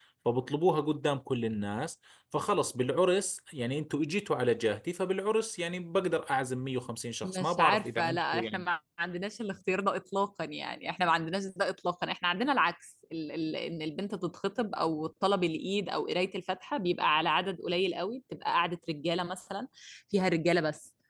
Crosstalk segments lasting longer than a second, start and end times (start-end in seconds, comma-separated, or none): 7.2-8.6